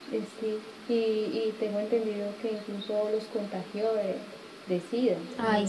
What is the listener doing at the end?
taking over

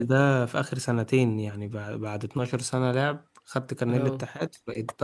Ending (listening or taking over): listening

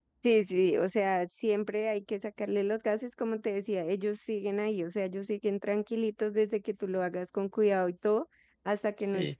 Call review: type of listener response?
listening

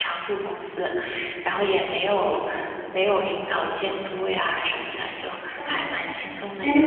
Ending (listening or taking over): taking over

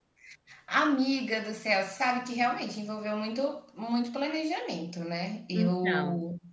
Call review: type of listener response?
listening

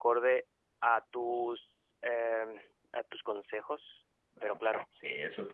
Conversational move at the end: taking over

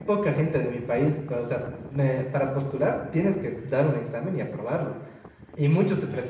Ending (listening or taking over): listening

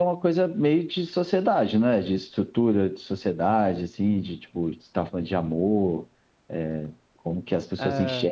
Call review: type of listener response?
taking over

